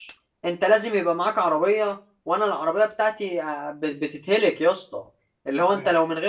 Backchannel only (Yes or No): Yes